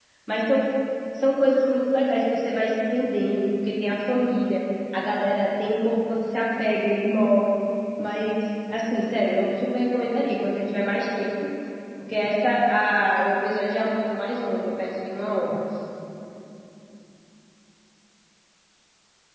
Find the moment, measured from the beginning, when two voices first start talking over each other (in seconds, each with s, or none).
none